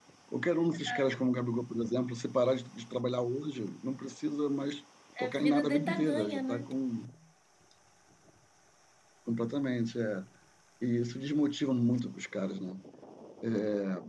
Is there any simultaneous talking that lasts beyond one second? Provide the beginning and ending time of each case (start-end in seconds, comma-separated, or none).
5.2-6.7